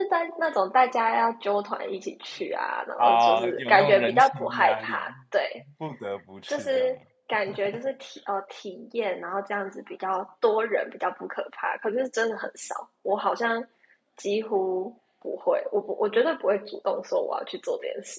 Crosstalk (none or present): present